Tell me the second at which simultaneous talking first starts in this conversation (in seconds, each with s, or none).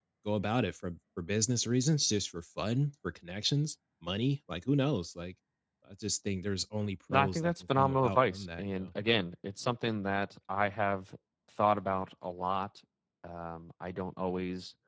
7.1 s